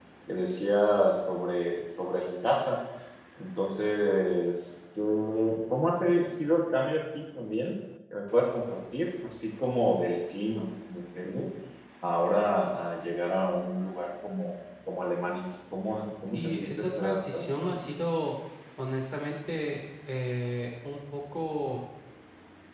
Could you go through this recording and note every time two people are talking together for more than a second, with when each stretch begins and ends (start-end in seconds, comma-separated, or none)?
16.3-17.8